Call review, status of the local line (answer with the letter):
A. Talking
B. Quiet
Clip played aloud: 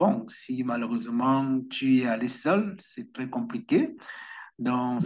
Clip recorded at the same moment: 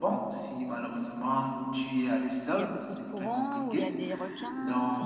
A